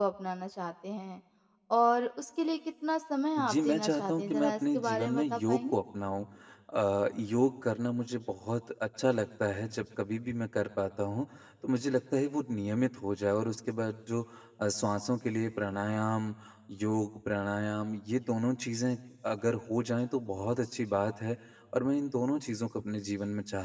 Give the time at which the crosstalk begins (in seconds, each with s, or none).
3.4 s